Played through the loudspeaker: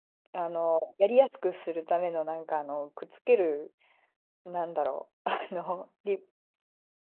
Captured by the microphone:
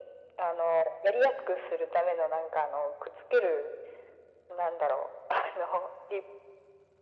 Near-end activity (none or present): none